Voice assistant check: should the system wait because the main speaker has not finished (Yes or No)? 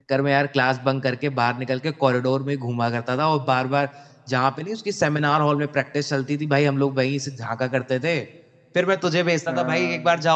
Yes